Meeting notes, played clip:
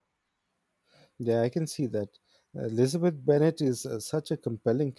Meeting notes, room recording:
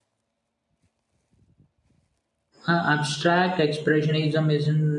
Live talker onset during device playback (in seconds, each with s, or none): 2.7 s